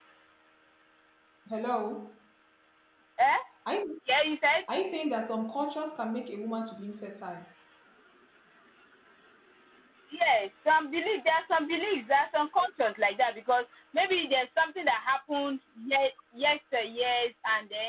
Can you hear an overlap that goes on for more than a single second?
No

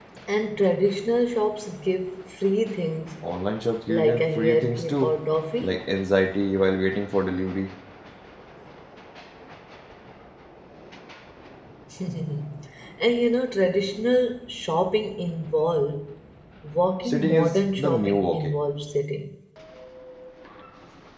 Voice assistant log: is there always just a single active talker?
No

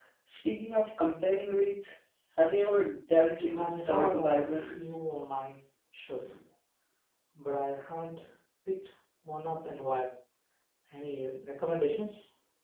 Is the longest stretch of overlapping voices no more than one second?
No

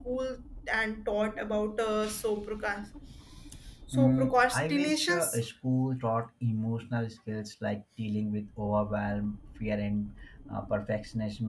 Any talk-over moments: Yes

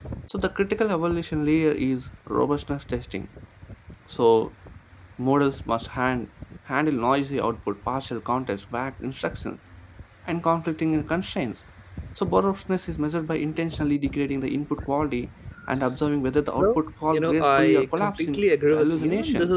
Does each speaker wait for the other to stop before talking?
No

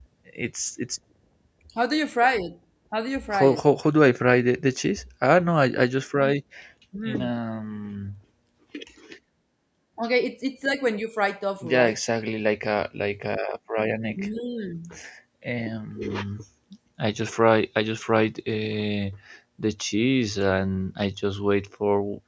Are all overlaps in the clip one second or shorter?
Yes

